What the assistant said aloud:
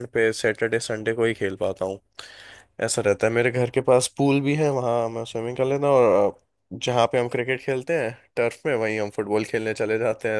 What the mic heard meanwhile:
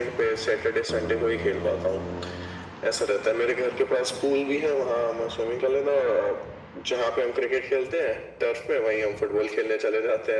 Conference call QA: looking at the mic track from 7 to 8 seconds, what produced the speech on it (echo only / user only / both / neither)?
echo only